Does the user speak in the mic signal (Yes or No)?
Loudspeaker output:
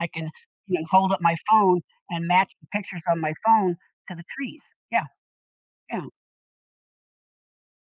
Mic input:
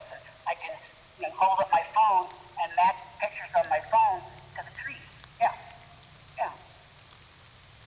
No